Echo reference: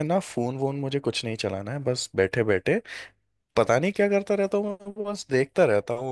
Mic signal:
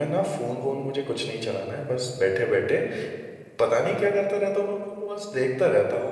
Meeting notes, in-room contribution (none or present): none